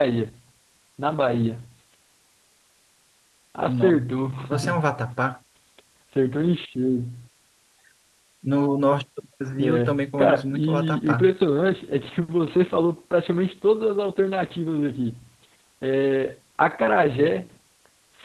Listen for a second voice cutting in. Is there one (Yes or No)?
Yes